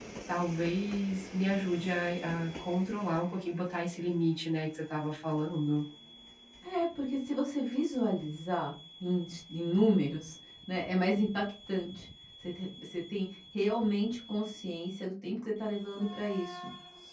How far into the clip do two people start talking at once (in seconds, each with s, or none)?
none